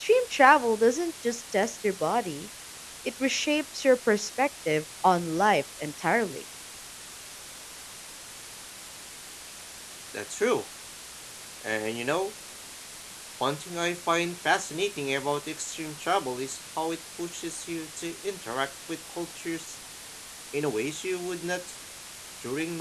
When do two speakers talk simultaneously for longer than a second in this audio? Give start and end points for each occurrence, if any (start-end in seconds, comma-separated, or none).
none